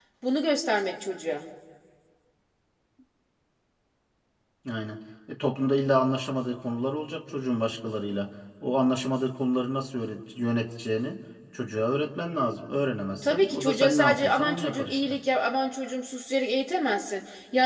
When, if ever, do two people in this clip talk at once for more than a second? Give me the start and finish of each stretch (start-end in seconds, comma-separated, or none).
13.2-15.0